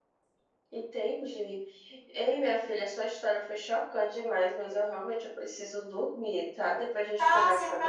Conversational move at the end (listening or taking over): taking over